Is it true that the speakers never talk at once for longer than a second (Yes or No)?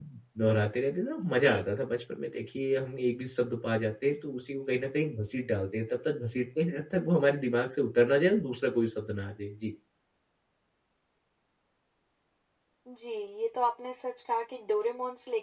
Yes